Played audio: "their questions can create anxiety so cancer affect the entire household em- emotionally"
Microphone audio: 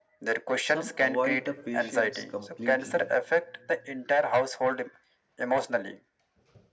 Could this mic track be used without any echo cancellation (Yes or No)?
No